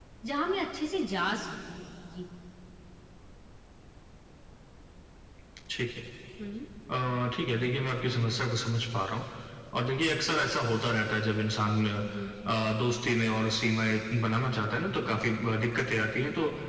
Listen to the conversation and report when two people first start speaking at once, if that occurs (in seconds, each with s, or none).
none